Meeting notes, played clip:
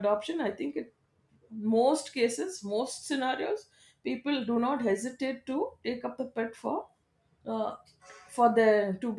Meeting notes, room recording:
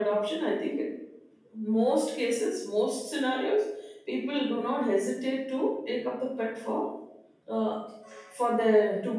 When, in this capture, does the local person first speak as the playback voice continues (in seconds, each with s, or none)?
none